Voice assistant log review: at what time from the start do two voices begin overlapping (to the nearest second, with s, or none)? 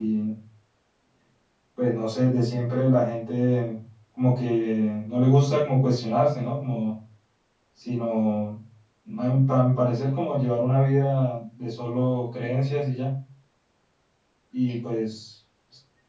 none